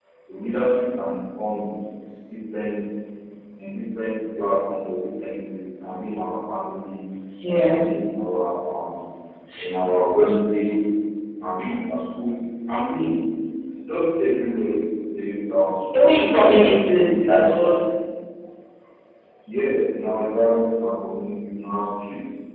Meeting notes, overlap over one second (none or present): present